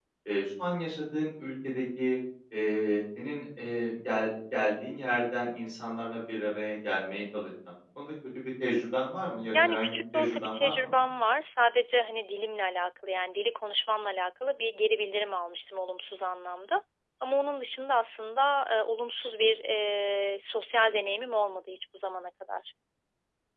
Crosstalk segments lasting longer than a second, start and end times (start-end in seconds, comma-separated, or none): 9.5-10.9